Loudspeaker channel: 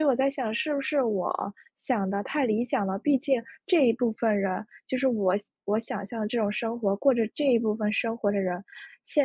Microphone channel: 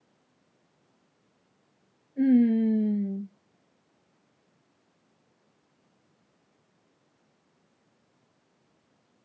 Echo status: none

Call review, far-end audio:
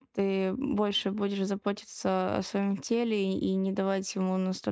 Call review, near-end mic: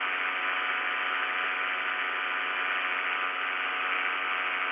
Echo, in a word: none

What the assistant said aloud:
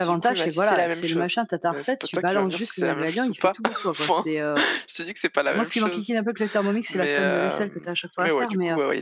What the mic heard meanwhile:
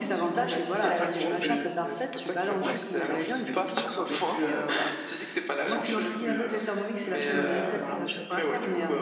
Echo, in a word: present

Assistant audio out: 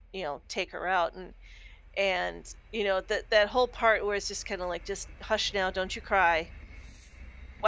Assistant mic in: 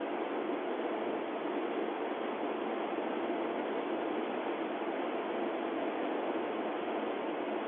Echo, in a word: none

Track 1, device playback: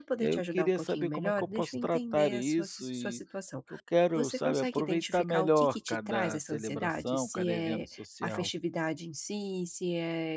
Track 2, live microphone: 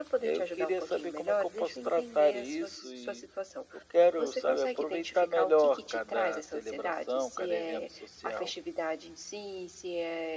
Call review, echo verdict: present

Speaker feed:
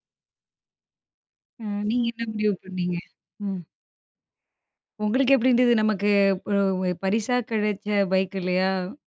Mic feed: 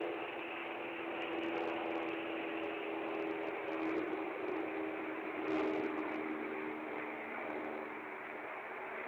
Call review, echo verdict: none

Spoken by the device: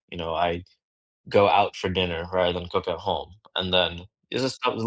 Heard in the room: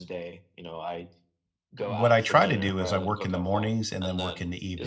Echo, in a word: present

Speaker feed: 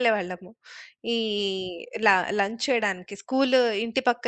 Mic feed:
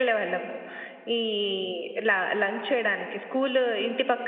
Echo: present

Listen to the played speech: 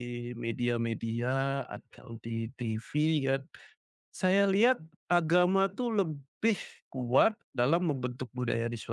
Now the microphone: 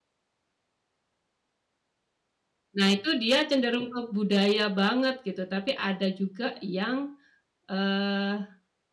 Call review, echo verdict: none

